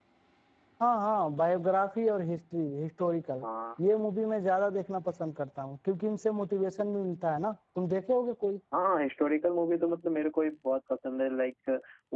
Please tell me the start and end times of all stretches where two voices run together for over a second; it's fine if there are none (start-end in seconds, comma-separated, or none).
none